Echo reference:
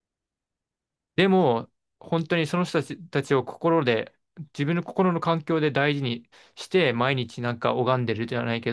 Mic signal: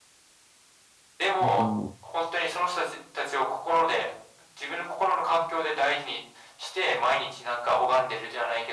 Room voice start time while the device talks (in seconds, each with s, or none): 1.4 s